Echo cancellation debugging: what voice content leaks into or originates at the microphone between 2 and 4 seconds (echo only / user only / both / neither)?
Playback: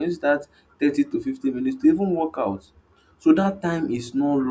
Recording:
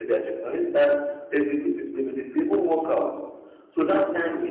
echo only